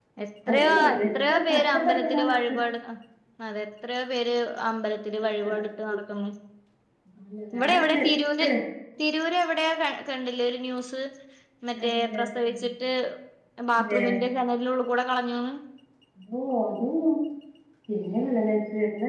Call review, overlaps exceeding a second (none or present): present